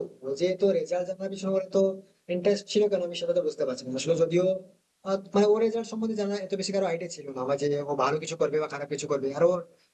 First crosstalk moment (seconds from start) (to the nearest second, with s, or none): none